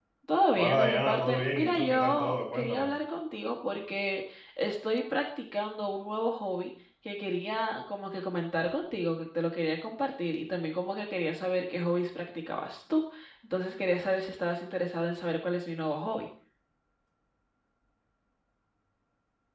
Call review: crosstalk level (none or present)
present